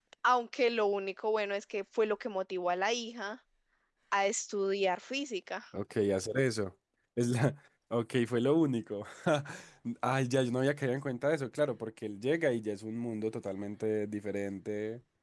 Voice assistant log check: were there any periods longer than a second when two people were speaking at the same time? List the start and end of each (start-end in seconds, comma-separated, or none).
none